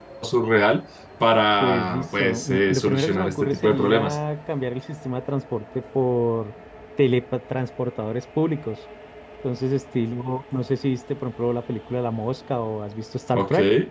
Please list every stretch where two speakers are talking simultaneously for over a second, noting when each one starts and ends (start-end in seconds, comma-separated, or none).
1.6-4.2